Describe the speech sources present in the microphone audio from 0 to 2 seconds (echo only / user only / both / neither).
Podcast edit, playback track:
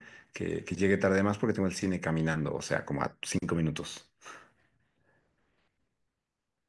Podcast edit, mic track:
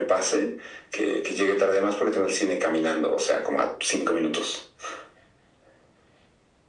echo only